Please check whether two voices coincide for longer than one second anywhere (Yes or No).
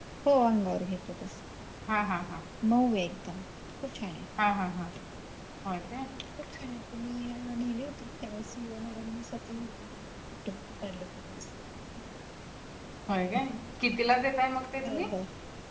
No